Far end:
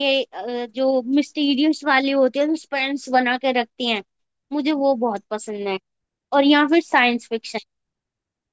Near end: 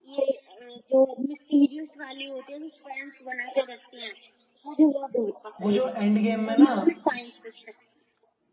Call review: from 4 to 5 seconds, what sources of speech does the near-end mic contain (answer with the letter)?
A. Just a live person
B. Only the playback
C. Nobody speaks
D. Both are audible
B